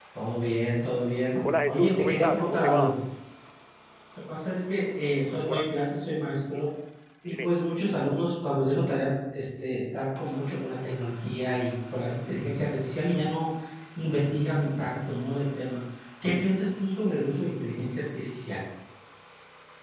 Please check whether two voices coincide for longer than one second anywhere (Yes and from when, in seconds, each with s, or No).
Yes, from 1.6 s